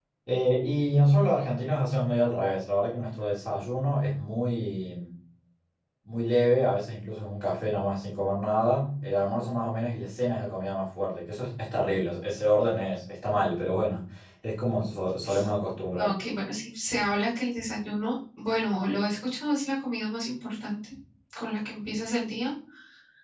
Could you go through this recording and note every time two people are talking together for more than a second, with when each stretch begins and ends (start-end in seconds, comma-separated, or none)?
none